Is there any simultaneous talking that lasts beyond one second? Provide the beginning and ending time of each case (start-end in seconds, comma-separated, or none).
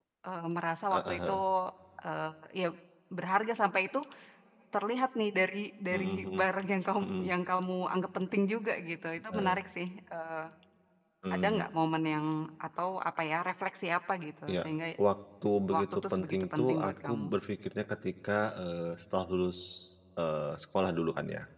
15.7-17.3